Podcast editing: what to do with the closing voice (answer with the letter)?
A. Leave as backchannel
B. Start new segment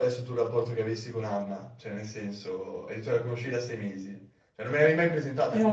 A